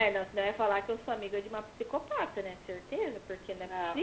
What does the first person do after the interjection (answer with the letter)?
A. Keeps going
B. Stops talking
B